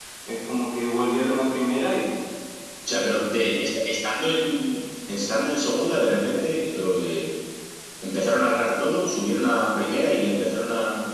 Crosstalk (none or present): none